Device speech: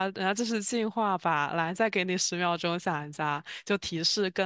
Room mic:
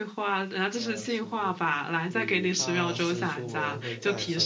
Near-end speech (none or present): present